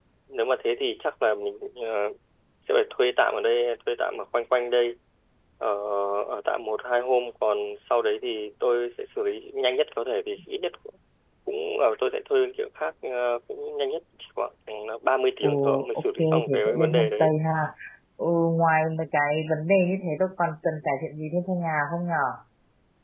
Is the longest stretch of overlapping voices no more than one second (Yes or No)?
No